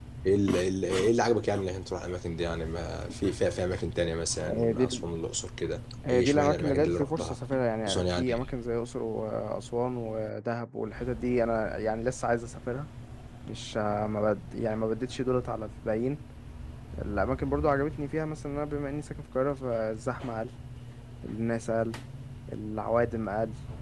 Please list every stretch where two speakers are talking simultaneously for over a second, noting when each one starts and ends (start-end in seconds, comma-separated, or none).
6.1-7.4